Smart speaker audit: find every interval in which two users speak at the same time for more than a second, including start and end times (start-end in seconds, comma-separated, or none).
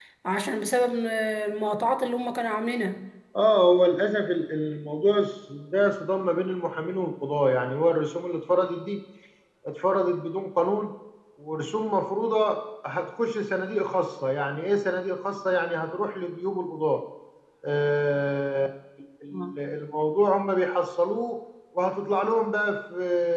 none